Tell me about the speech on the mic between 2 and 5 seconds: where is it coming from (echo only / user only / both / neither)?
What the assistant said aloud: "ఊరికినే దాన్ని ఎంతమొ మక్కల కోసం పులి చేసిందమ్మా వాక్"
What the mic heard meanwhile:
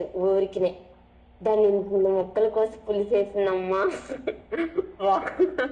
echo only